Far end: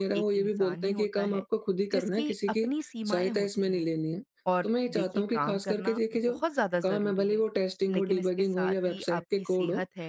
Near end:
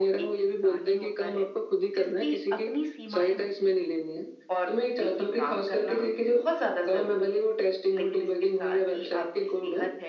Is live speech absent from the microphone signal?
Yes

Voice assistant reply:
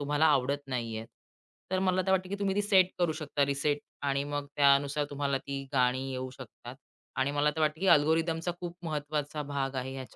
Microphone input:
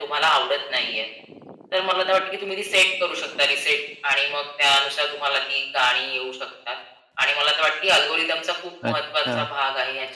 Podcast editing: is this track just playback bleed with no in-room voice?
No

